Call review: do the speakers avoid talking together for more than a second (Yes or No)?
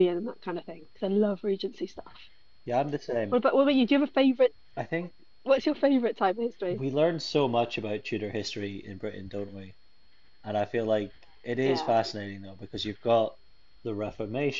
Yes